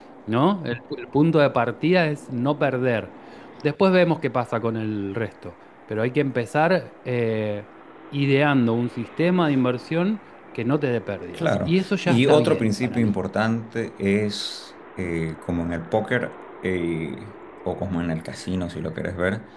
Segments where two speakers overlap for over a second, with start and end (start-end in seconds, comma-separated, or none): 11.3-13.1